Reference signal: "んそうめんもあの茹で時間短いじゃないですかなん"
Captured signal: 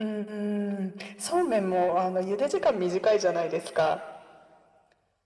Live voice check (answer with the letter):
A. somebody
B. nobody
B